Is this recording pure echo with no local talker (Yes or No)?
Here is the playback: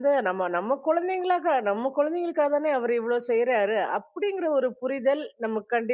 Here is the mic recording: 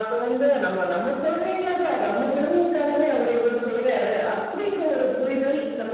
Yes